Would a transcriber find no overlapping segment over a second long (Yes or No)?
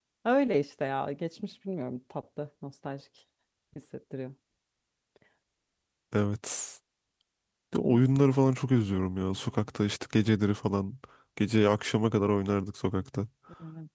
Yes